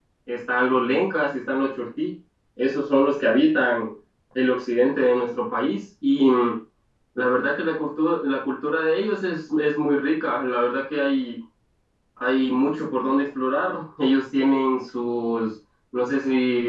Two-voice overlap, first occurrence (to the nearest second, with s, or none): none